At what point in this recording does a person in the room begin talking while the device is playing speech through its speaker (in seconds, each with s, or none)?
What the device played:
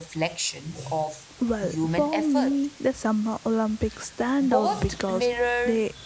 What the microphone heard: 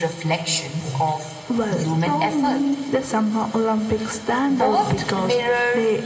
none